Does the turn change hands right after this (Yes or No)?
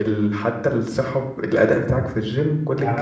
Yes